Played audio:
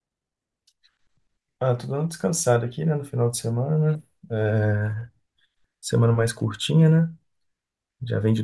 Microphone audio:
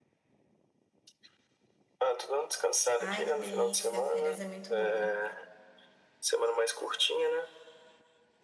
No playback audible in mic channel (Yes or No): No